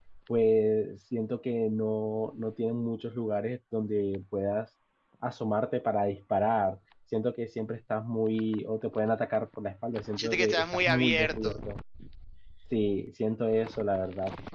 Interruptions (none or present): present